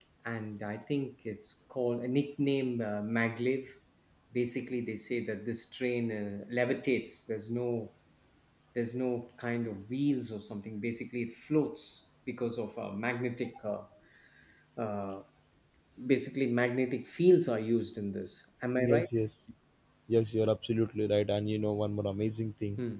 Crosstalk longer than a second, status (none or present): none